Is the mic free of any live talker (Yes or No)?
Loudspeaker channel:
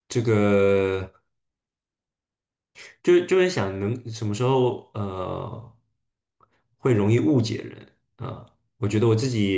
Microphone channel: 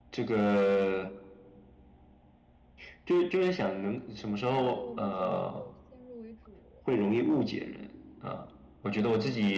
No